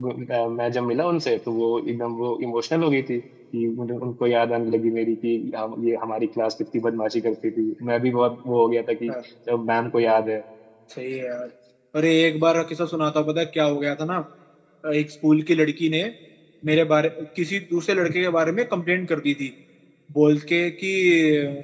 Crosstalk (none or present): none